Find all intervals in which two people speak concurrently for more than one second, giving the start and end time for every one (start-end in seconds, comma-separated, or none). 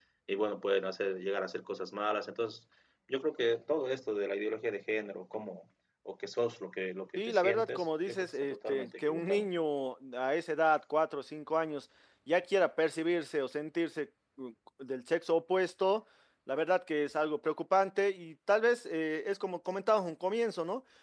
7.2-9.5